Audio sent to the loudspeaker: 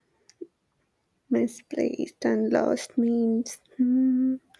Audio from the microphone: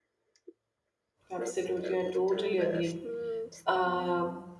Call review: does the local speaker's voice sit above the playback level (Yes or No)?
Yes